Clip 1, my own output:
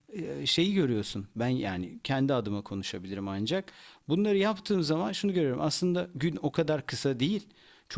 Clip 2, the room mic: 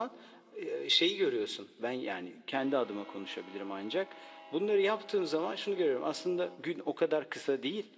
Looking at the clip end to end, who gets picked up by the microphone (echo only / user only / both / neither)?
echo only